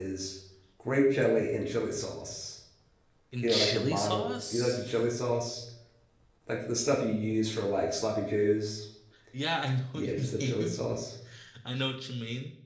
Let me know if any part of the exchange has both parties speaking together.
Yes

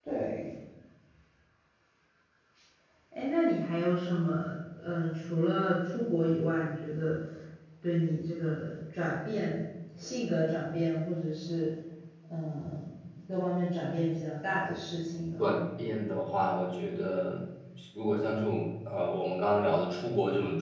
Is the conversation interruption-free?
Yes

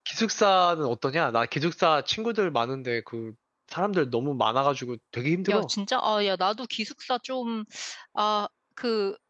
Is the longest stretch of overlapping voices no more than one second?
Yes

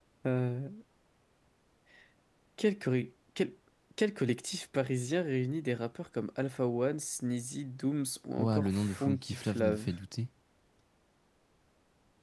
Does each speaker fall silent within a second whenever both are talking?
No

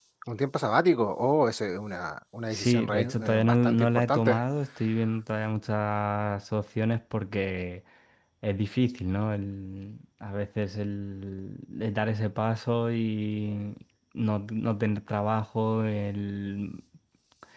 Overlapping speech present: Yes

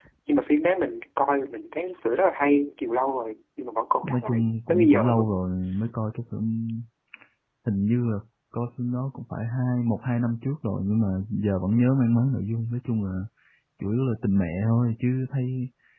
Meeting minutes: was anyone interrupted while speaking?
Yes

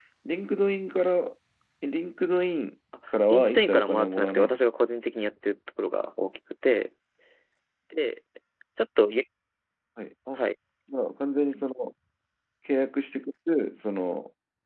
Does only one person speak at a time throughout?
No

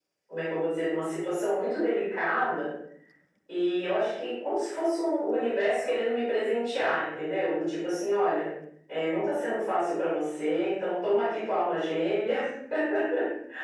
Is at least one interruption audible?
No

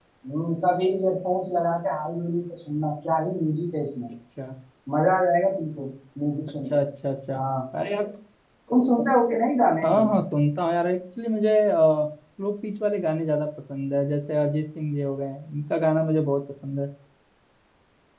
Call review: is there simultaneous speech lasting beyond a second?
No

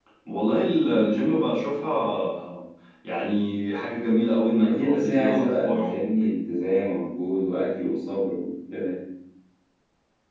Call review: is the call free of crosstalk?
No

